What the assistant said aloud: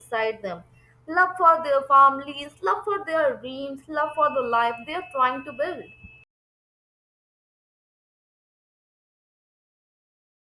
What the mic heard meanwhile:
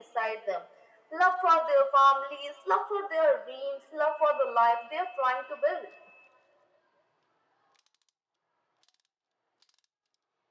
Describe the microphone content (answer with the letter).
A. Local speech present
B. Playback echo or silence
B